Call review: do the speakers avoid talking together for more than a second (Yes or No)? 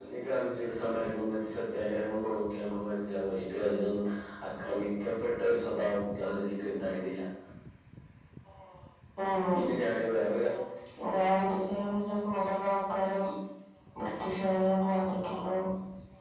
Yes